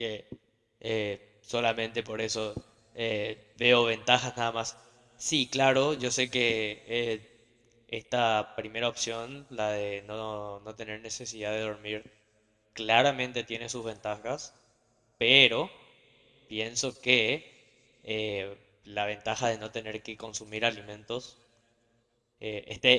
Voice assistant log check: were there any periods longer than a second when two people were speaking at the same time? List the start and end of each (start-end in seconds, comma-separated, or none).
none